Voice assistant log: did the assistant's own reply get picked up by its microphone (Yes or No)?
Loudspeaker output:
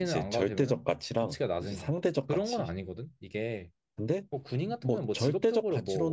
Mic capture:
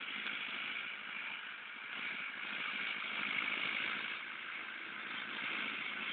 No